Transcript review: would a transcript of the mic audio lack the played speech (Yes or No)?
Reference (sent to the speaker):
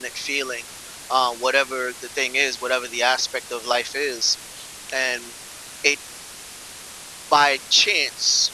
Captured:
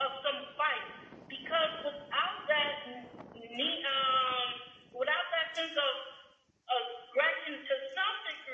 Yes